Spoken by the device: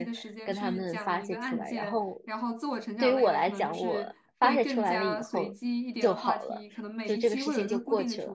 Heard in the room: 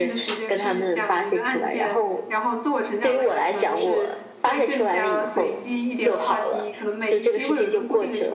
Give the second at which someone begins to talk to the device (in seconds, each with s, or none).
none